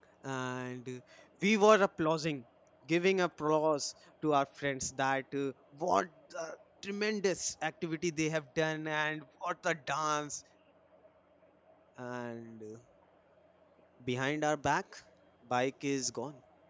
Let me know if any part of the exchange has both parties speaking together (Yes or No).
No